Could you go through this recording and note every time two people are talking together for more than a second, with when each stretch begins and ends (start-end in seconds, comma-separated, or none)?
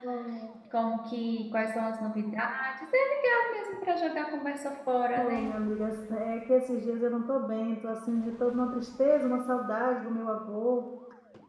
none